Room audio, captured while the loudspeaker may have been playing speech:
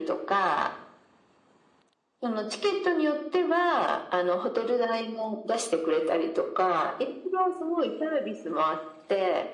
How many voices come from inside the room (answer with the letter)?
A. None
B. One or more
A